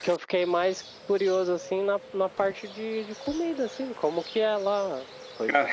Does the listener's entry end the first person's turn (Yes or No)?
No